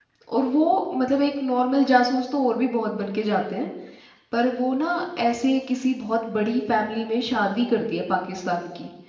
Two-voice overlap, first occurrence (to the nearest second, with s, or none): none